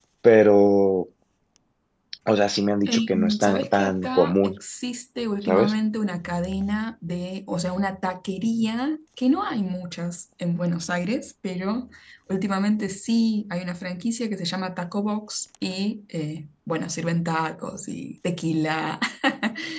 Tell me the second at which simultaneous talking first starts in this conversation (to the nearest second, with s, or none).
3 s